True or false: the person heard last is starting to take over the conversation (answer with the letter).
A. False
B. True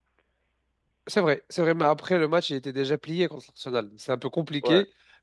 A